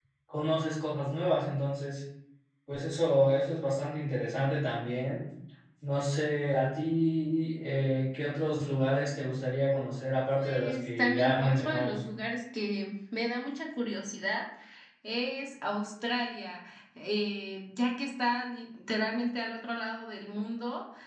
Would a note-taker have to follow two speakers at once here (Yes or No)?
Yes